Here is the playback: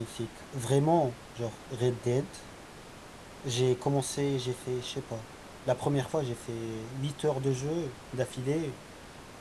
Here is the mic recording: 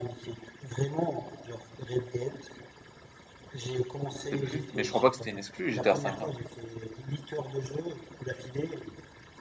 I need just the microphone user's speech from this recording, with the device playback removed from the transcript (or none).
je sais plus. Mais je crois pas que c'était une exclu, j'étais à cinq. ans.